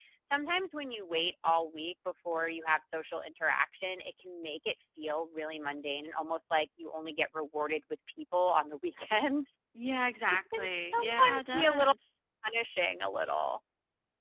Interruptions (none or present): present